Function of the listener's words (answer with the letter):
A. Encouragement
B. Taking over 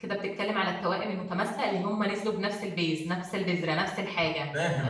A